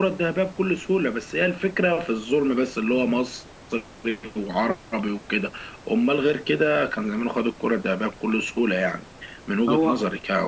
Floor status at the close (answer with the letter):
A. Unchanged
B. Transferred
A